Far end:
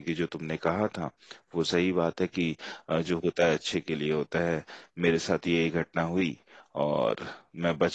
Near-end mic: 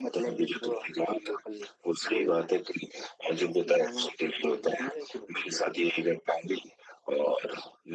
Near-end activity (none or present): present